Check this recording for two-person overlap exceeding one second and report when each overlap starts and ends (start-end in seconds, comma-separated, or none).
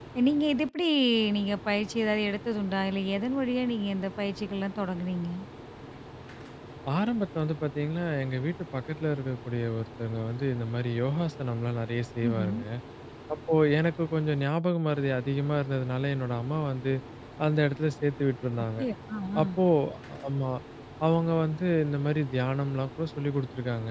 none